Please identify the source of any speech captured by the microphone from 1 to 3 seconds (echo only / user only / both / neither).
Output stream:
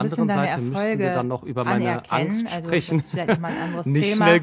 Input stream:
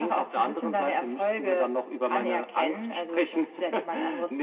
echo only